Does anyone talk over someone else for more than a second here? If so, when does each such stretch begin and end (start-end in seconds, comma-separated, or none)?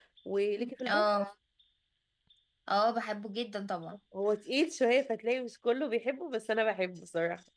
none